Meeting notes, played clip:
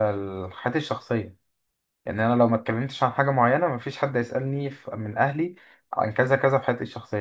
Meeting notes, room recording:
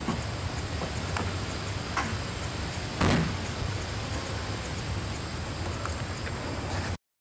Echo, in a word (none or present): none